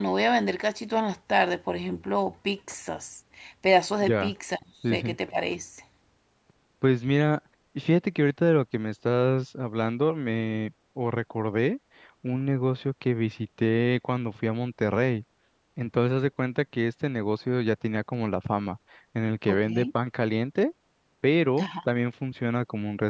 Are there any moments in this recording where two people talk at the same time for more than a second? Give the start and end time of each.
none

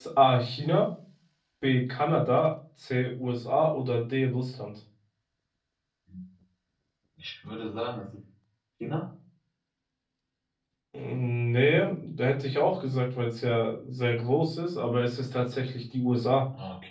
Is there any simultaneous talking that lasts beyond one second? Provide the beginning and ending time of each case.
none

